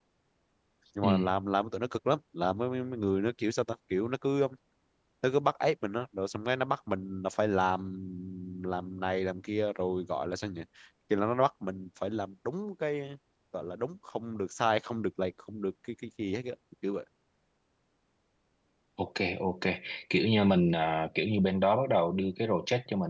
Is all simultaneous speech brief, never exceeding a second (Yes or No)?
Yes